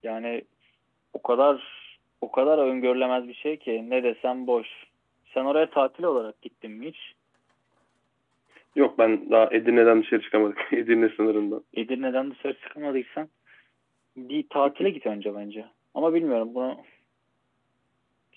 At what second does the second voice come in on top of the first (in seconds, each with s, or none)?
none